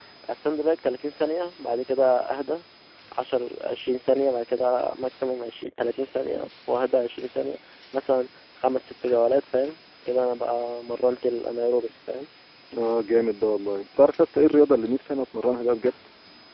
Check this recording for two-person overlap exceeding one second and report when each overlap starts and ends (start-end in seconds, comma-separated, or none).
none